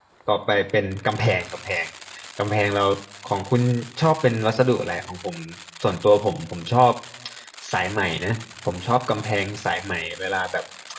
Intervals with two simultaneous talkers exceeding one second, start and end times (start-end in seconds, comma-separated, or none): none